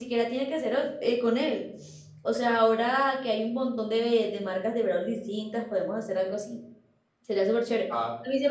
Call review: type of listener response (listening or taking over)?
listening